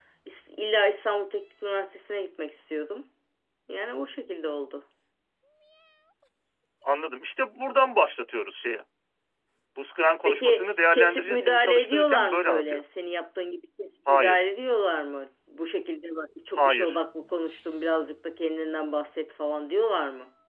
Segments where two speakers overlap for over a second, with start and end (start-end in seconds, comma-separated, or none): 10.2-12.8